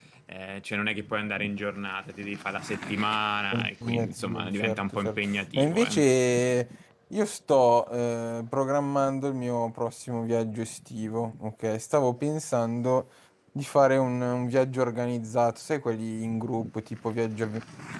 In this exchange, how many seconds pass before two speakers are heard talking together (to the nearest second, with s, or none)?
4 s